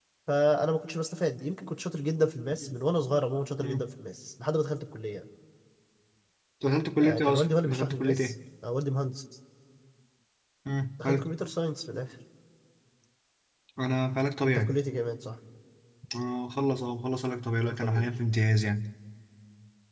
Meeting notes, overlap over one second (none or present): present